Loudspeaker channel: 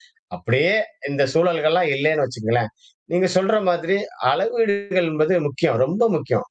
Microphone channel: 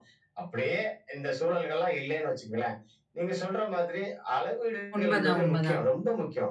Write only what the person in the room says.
உண்மதான், உண்மதான்.

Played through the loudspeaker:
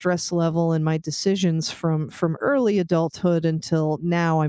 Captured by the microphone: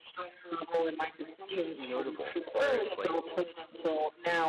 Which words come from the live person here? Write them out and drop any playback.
notable, where it's like,

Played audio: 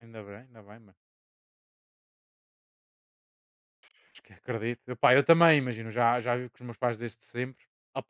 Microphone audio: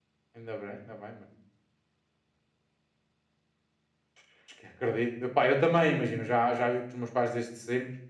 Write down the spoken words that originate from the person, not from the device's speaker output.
none

